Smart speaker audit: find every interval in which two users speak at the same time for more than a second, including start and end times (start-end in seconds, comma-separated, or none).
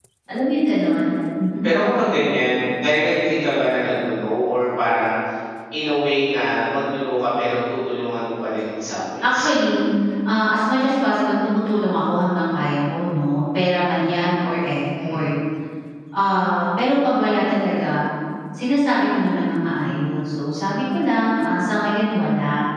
none